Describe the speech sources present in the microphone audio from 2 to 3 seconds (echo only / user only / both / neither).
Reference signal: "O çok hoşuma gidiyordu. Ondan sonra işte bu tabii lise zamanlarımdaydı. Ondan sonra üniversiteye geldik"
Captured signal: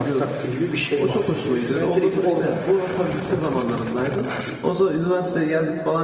both